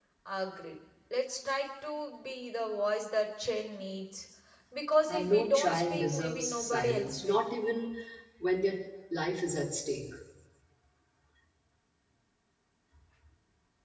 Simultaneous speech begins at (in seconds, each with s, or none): 5.1 s